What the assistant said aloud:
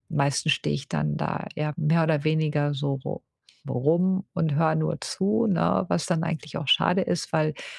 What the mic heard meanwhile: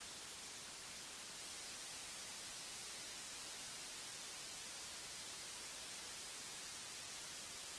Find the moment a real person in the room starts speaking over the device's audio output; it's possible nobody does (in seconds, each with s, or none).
none